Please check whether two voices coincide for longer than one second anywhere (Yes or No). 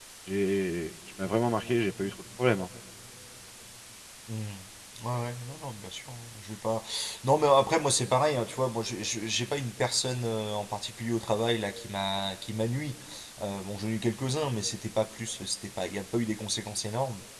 No